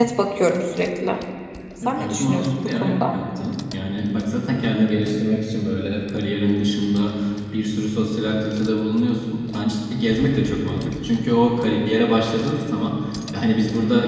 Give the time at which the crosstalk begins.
1.9 s

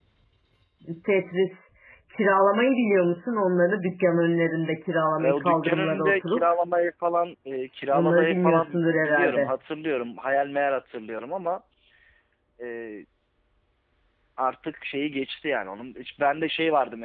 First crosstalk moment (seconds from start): 5.2 s

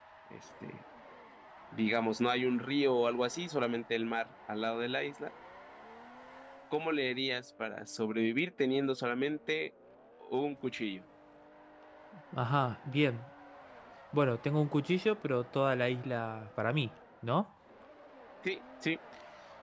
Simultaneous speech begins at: none

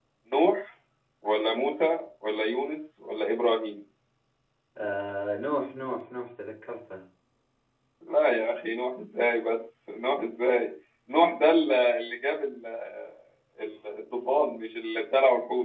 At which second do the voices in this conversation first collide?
none

